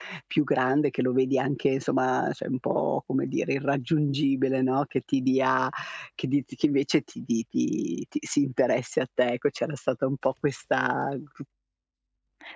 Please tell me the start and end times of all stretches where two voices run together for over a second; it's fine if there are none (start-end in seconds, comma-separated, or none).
none